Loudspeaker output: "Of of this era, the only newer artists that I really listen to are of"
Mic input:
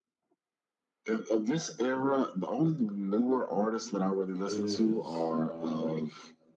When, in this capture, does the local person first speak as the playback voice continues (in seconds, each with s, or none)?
4.5 s